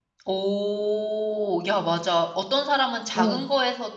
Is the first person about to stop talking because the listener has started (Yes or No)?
No